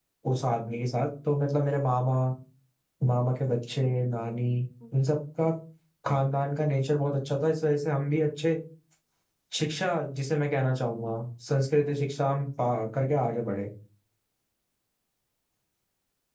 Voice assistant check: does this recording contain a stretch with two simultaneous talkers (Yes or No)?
No